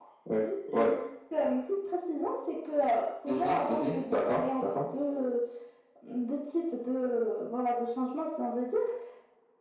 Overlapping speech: Yes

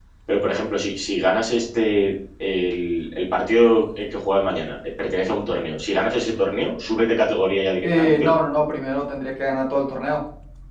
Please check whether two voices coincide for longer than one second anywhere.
No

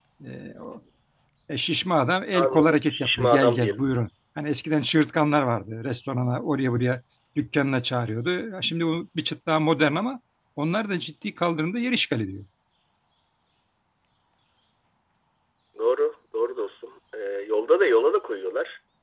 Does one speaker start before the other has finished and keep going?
Yes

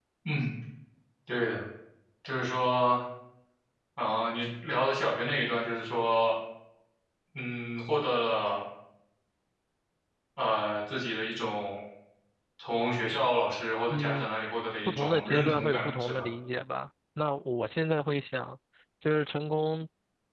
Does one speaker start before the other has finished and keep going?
Yes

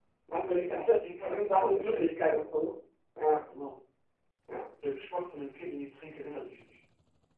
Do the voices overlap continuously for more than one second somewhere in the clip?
Yes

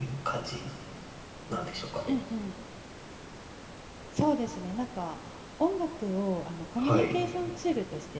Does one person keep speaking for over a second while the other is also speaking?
No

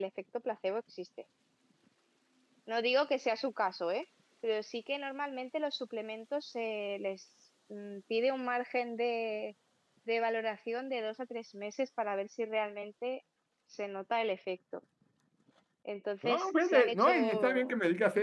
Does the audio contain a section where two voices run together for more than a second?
Yes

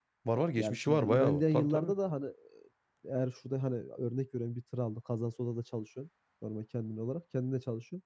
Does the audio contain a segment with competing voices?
Yes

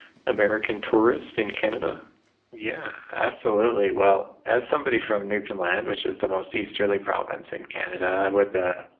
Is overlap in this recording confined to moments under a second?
Yes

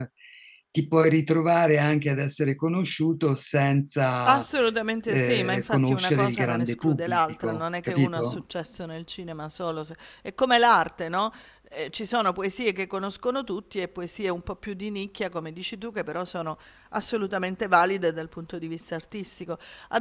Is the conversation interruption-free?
No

